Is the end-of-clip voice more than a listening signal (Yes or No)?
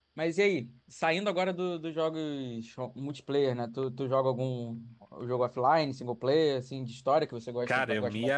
Yes